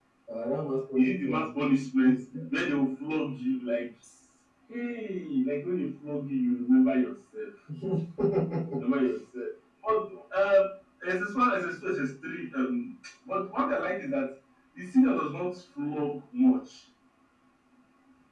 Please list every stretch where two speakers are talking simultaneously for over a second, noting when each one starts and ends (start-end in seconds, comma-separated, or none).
none